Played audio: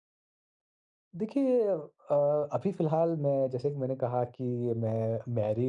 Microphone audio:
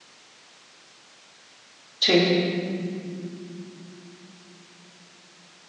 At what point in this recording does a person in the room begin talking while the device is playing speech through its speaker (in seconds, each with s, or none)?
2.0 s